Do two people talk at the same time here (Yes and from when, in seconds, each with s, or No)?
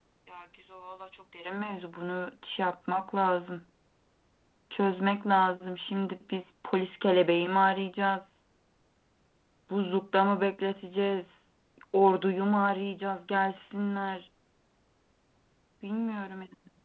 No